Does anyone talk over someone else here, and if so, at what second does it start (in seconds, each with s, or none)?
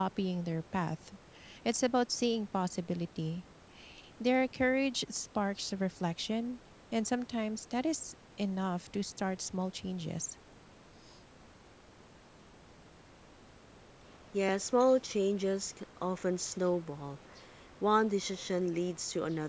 none